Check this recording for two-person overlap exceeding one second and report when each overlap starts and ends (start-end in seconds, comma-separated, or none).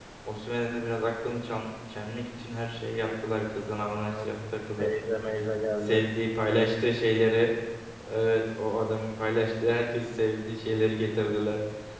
none